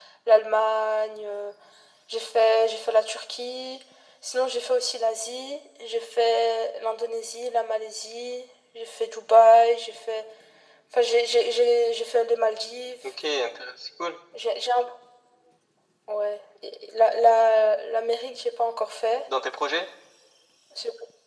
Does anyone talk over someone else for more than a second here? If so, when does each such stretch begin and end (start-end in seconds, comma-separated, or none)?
none